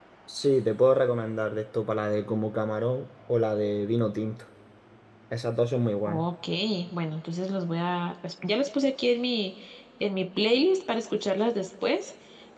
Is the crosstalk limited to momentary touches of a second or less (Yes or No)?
Yes